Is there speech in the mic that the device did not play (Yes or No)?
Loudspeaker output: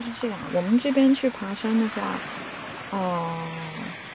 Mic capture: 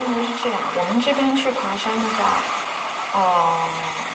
No